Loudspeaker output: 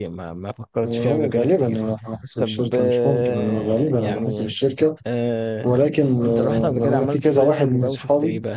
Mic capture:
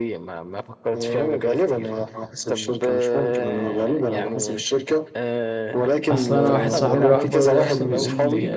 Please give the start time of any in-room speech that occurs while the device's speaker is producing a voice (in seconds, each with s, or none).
6.1 s